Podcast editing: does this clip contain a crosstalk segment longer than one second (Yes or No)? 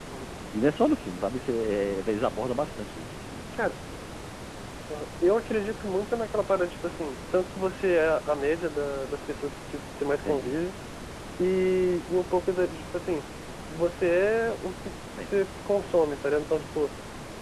No